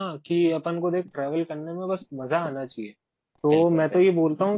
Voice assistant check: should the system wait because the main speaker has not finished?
Yes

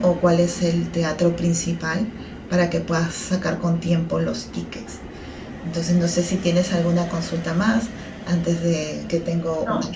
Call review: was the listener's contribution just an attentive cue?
No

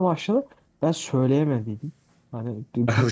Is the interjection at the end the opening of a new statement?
No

